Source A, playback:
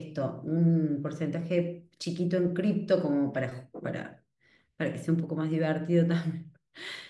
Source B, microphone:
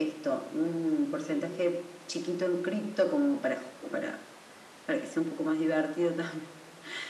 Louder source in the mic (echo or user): echo